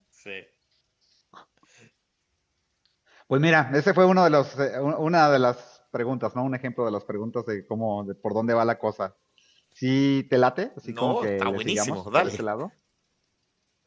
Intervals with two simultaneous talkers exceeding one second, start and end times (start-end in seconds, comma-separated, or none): 10.9-12.4